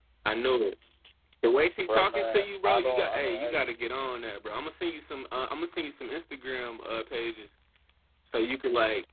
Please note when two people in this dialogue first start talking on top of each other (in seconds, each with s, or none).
1.8 s